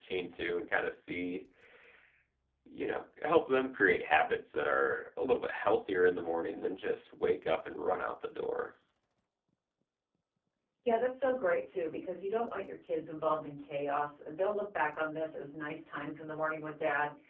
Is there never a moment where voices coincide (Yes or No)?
Yes